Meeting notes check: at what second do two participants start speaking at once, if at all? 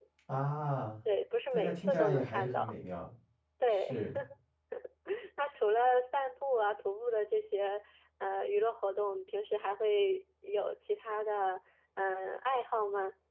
1.5 s

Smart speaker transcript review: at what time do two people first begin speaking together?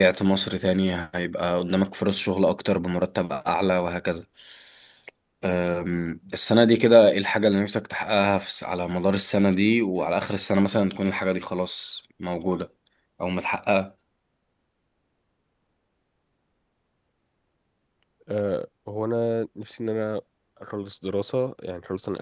none

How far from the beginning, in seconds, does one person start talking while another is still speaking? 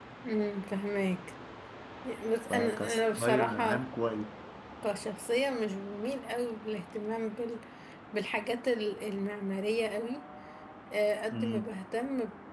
2.5 s

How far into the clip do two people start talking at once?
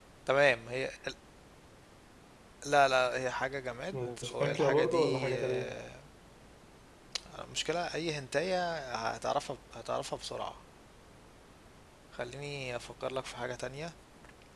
3.9 s

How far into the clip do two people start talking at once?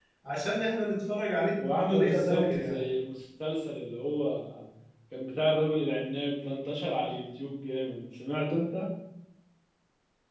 1.6 s

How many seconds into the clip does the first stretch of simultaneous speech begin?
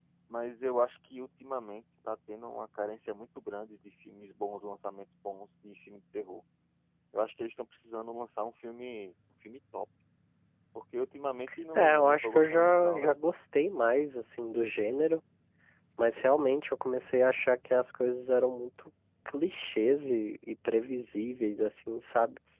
11.8 s

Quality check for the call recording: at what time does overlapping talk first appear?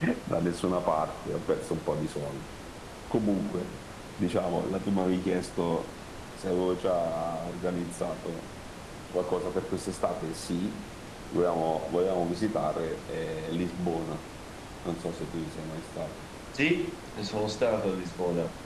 none

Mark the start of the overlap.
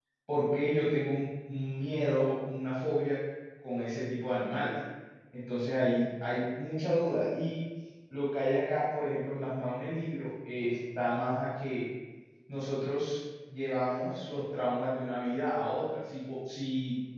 none

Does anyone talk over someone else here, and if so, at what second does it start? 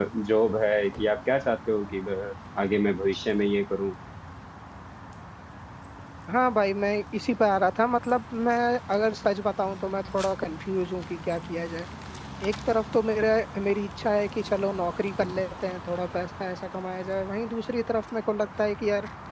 none

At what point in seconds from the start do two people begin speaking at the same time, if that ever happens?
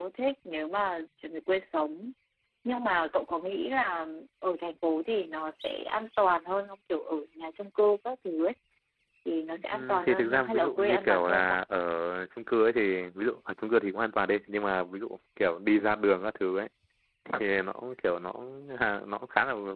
9.7 s

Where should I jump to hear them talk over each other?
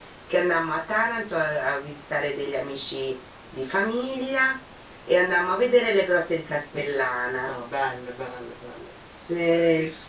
none

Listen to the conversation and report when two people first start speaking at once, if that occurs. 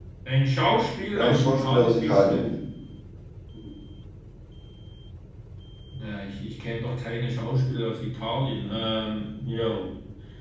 1.1 s

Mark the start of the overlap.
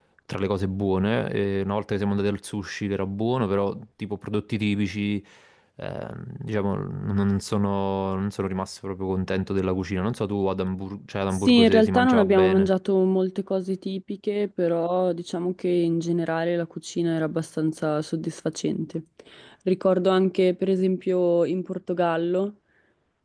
11.3 s

